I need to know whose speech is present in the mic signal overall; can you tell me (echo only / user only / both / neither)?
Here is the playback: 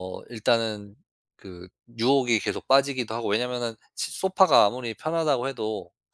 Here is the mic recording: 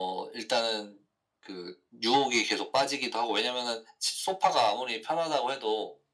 echo only